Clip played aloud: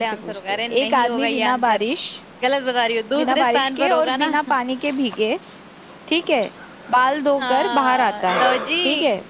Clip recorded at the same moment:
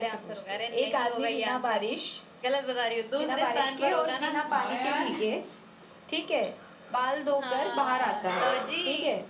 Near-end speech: present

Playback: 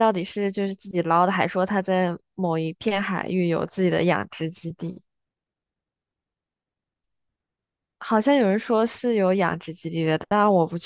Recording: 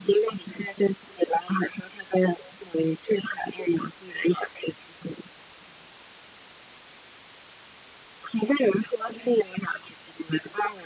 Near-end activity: none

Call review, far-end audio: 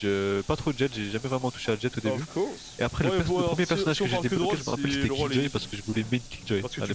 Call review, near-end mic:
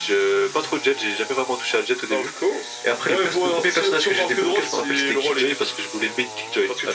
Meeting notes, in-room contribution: none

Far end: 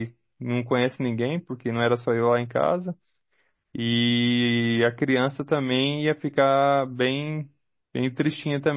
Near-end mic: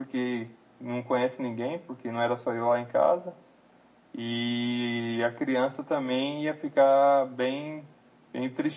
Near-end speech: none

